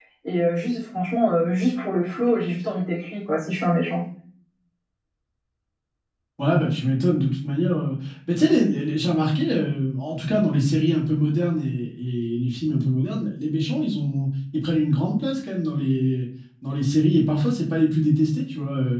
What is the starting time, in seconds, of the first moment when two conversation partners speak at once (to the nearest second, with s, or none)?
none